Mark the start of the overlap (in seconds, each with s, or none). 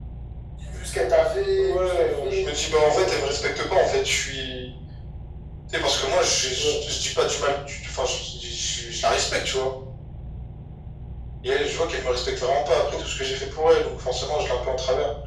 1.6 s